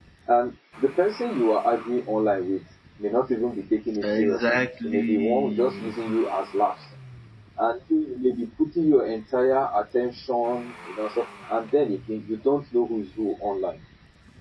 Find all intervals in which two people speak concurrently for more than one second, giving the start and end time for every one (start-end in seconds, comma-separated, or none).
4.0-5.9